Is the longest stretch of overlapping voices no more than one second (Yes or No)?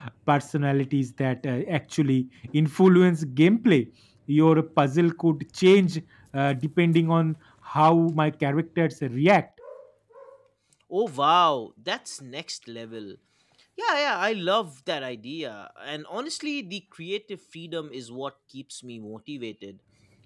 Yes